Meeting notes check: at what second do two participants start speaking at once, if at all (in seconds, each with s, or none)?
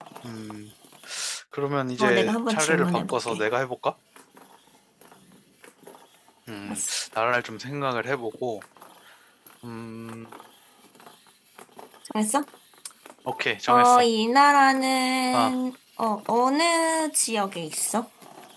2.0 s